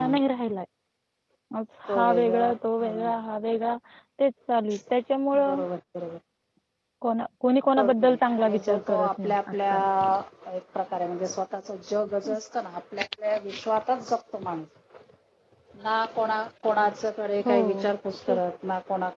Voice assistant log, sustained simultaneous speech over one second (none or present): present